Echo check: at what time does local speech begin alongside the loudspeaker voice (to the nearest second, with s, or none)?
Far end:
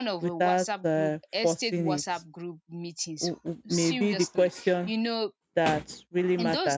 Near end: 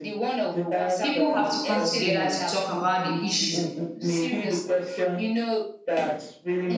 1 s